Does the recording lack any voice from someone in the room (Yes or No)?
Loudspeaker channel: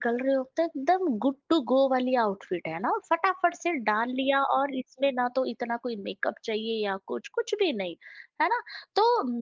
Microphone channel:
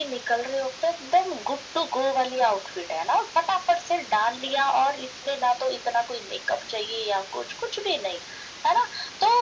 Yes